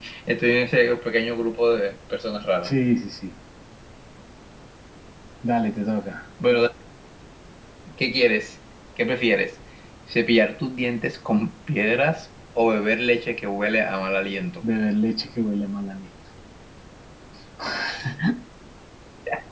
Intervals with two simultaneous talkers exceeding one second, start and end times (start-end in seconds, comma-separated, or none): none